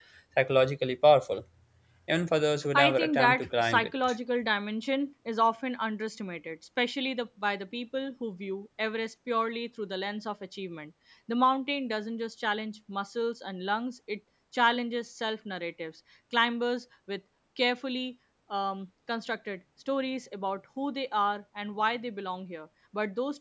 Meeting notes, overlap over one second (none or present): present